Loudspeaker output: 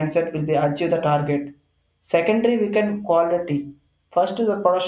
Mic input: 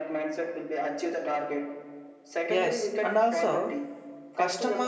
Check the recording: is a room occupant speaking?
Yes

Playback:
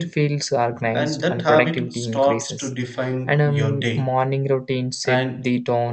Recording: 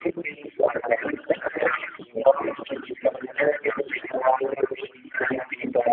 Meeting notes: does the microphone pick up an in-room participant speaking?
No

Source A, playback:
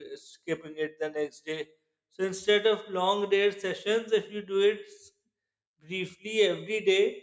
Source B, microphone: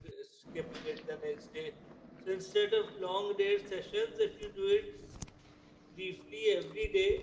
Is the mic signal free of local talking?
Yes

